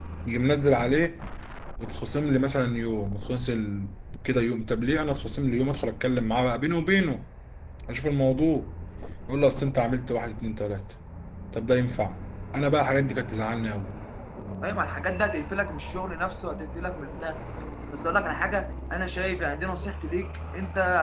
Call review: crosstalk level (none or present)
none